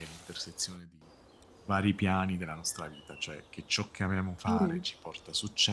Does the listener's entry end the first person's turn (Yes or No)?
No